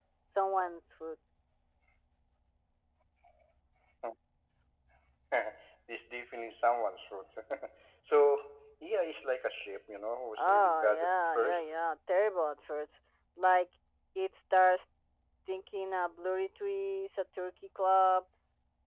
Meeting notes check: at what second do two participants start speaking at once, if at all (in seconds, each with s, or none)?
10.4 s